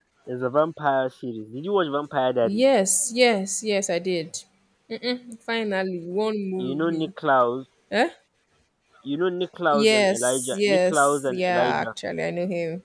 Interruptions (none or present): present